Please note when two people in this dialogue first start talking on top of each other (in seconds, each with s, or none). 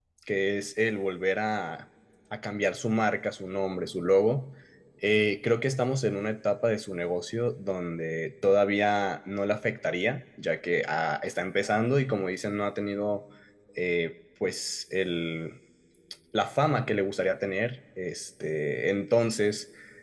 none